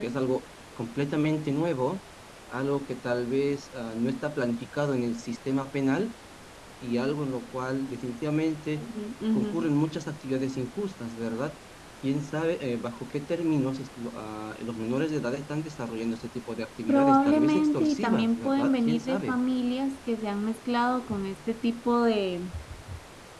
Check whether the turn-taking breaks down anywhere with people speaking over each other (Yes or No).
Yes